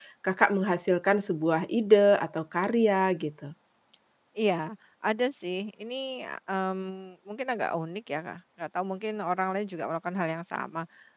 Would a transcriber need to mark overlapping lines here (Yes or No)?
No